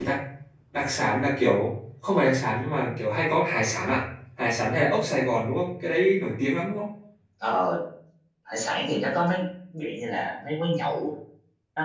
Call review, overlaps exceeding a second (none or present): none